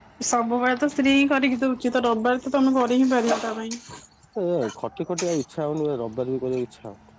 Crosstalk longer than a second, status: none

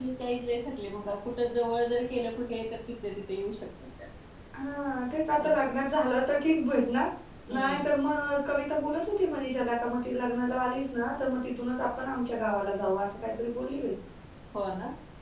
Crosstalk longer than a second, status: none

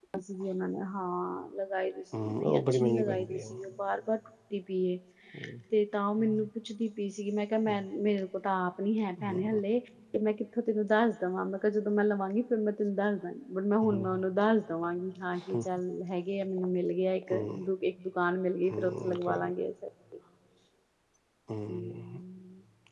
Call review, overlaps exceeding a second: present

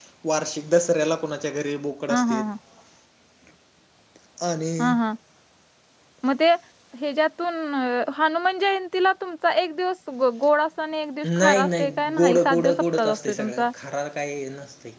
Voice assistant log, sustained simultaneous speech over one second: present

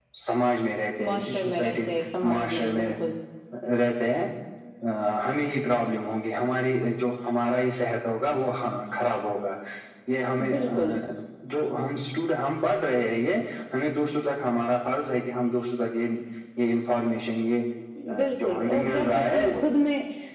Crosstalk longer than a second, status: present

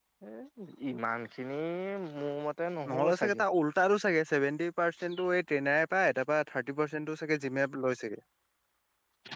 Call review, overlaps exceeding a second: none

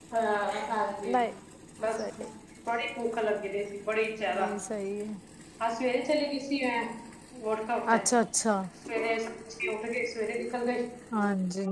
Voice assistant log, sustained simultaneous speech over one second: none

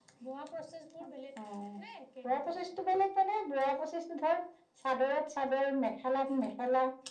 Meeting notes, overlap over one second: none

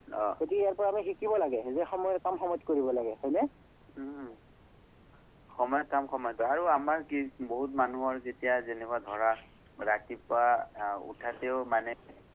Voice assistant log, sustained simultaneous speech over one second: none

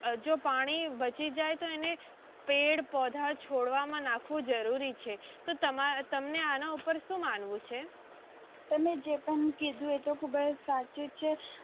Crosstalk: none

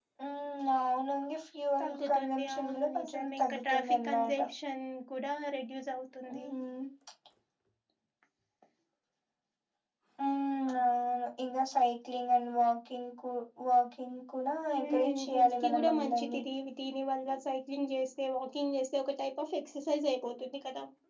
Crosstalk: present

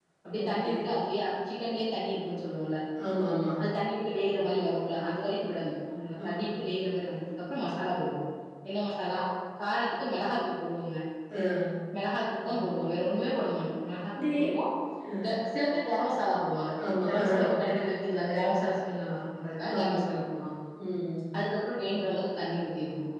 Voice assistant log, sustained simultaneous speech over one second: none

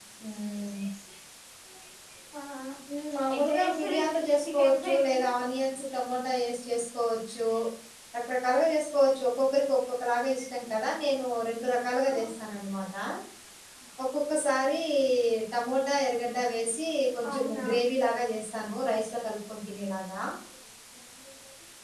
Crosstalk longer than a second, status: present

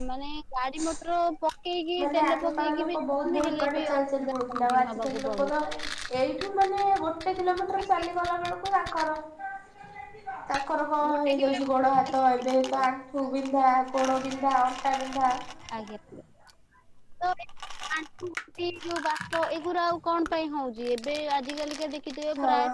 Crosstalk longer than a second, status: present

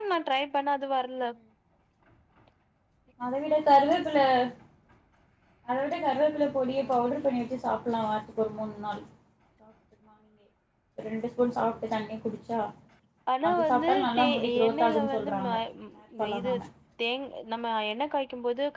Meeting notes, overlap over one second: present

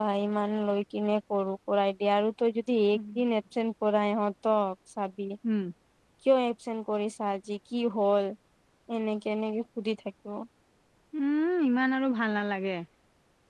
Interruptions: none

